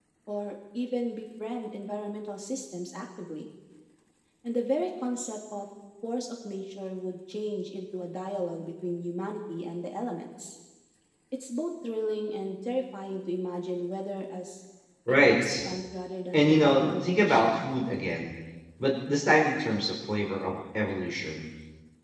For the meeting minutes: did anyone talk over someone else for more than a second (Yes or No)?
Yes